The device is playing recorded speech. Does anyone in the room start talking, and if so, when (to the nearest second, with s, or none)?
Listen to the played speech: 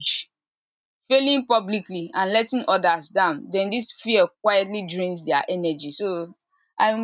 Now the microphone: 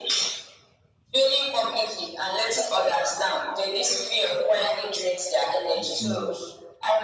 6 s